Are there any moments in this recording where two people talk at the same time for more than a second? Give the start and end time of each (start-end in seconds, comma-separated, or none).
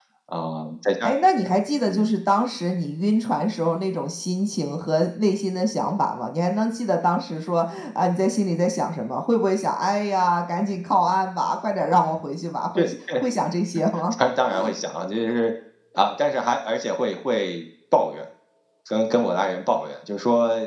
none